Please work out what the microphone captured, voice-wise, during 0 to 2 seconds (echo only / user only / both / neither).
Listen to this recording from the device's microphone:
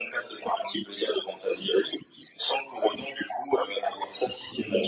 echo only